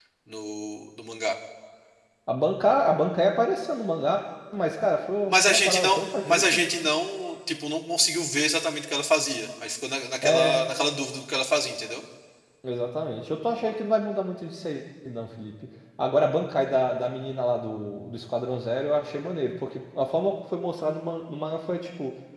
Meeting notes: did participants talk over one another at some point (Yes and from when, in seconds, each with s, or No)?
Yes, from 5.3 s